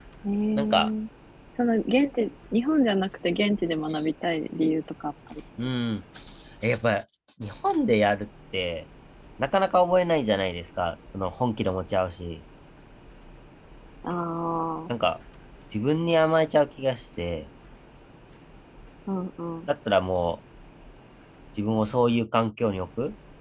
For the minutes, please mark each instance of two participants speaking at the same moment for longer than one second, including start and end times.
none

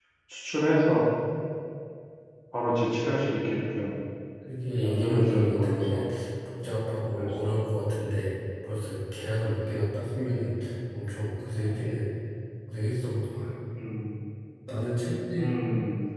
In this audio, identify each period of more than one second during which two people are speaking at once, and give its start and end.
4.8-6.0

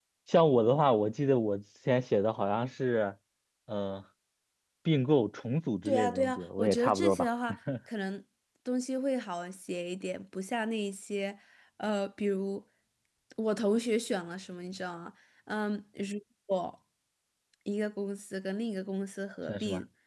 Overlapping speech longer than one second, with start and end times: 5.8-7.3

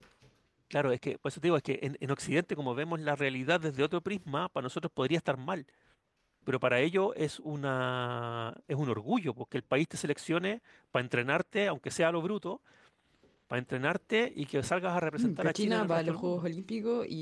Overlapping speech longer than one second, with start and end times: 15.2-16.4

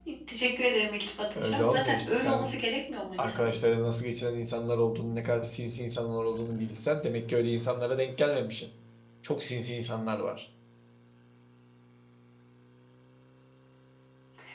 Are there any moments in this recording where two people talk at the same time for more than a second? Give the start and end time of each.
1.4-2.6

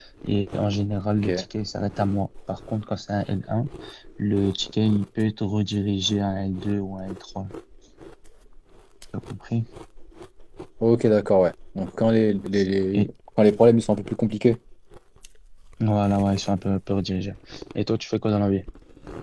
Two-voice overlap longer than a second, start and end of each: none

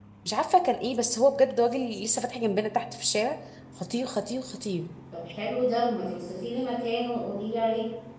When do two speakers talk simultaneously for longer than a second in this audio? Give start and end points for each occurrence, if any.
none

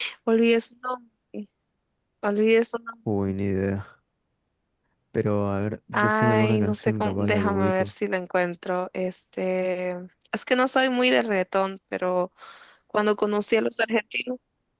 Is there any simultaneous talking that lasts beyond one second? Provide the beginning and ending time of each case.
5.9-7.9

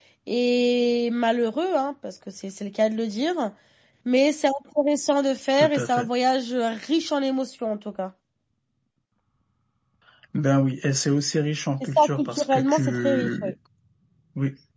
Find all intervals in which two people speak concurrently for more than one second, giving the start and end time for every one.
11.8-13.5

